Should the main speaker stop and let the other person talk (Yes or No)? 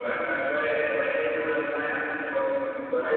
Yes